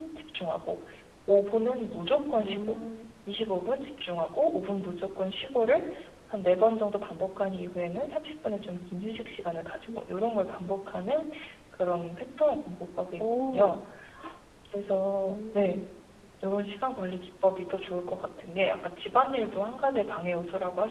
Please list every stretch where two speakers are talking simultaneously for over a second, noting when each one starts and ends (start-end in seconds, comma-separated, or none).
none